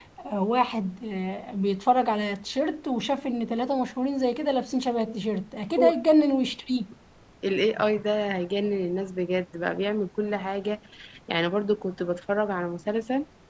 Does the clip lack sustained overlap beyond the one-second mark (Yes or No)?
Yes